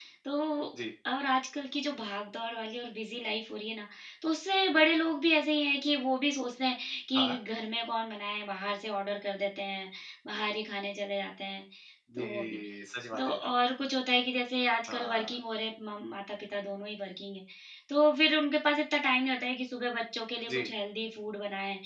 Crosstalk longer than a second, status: none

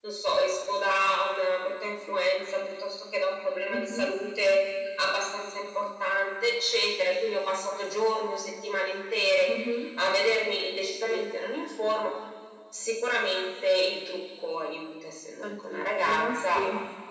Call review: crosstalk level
present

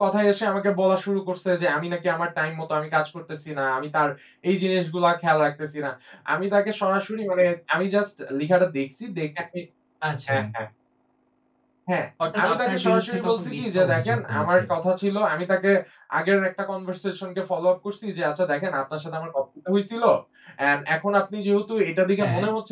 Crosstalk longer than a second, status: present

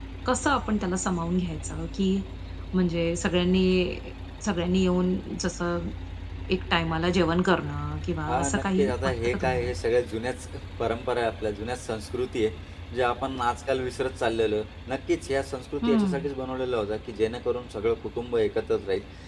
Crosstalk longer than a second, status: present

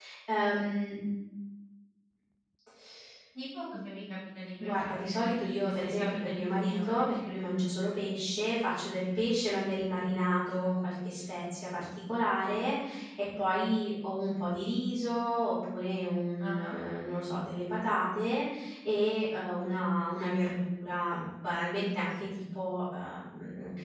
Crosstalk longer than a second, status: present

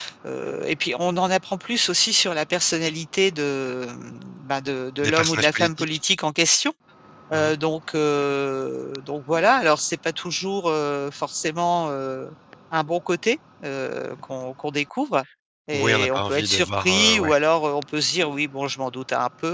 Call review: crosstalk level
present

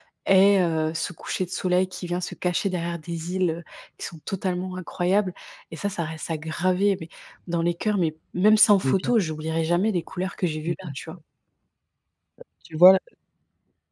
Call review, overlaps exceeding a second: none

